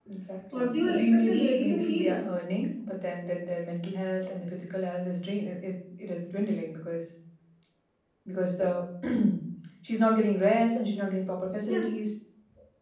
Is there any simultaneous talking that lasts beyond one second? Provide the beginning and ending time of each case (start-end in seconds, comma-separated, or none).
0.6-2.2